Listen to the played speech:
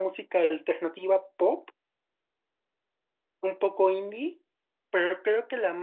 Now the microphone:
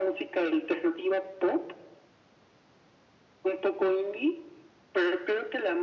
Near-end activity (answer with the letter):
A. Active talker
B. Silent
B